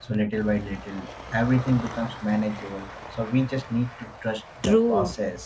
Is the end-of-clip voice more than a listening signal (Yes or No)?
Yes